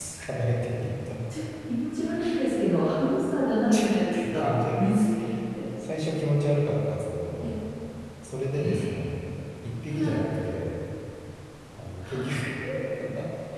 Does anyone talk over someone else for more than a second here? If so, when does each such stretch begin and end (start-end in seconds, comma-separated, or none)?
3.7-5.0